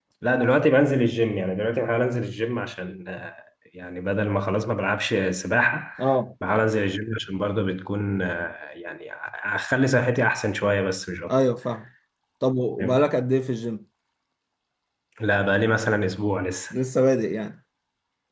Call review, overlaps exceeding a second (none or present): none